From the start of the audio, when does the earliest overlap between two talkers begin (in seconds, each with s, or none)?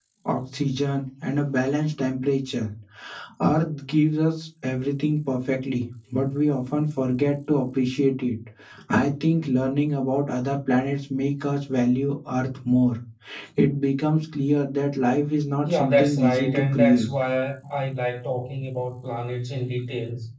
15.7 s